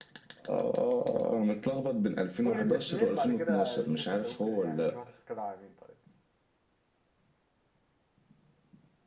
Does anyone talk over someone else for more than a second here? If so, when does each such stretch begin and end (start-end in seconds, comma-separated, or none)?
2.4-4.9